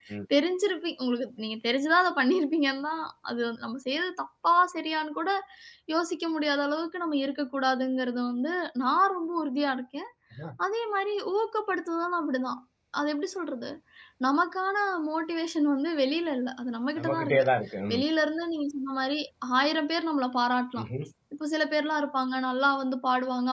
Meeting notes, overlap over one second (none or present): none